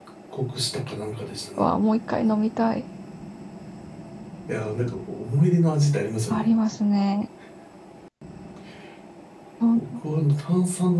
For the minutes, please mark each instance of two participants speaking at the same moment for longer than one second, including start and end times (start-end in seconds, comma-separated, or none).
none